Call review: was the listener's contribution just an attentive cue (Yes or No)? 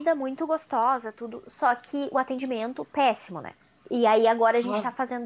Yes